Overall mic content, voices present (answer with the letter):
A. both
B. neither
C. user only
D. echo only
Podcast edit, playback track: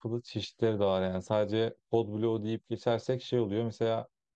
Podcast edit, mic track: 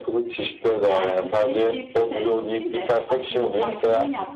A